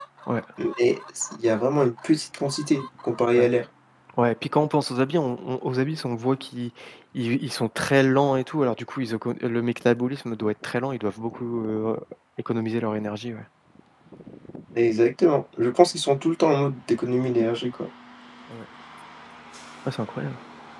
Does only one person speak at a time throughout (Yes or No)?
Yes